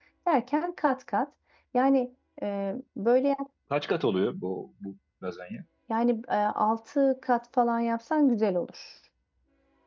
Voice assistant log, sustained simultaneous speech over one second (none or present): none